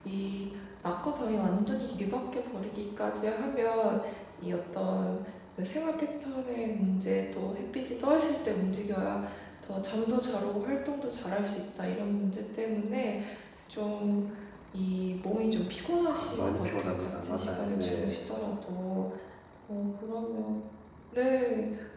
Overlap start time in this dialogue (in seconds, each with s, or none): 16.1 s